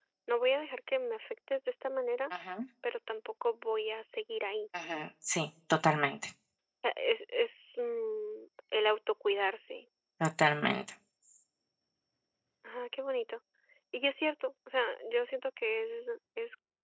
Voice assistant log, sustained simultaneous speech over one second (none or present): none